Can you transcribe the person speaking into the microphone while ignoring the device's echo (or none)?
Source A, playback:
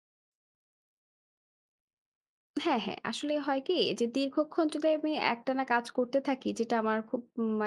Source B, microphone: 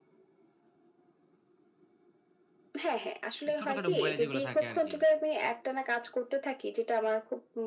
তো ছোটখাটো মোবাইলে যেগুলা থাকে আরকি।